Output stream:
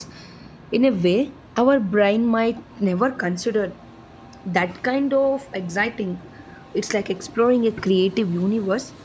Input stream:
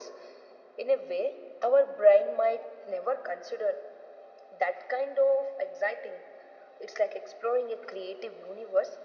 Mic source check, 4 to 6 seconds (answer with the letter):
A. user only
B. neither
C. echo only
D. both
C